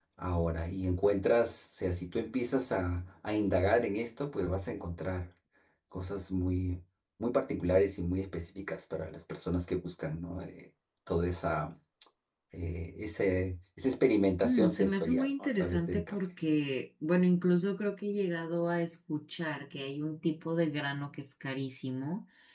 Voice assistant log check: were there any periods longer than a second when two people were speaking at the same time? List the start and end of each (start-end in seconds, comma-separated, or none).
14.4-16.2